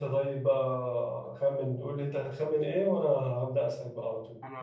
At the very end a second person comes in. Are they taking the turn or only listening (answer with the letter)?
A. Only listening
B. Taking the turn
A